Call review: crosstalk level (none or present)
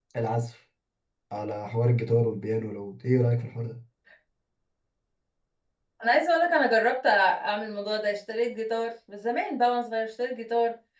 none